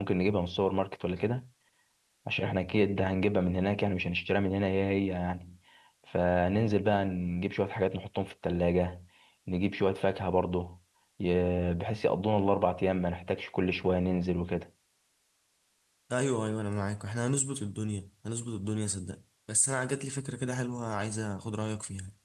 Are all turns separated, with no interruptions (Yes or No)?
Yes